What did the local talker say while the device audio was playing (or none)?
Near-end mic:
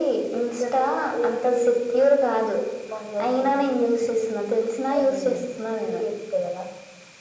none